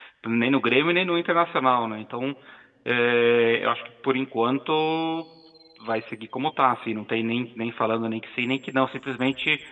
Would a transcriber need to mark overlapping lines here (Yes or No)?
No